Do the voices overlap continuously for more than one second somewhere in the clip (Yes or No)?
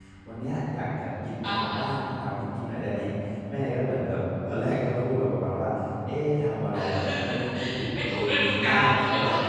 Yes